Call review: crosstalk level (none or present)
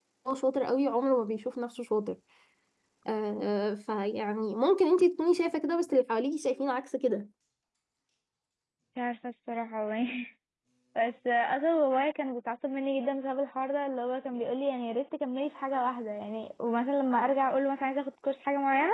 none